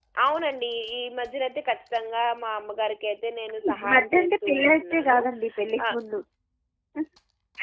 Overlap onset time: 3.6 s

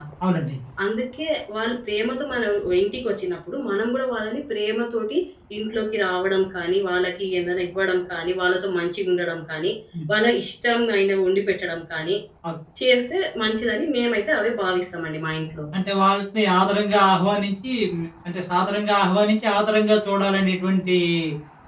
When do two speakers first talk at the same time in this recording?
none

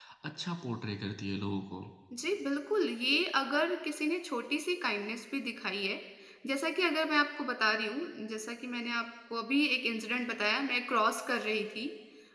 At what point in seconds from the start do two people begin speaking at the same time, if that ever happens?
none

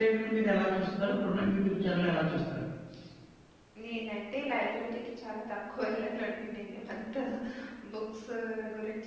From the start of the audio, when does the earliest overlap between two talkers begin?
none

